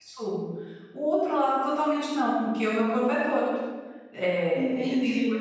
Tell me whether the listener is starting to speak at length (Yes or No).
No